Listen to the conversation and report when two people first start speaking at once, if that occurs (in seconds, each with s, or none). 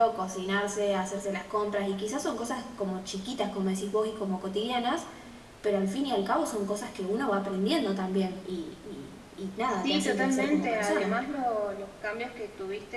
9.8 s